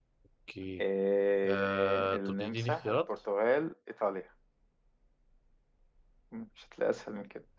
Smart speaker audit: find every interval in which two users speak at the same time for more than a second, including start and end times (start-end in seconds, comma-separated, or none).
1.5-3.1